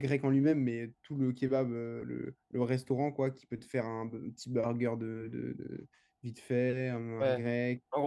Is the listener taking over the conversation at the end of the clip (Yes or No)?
Yes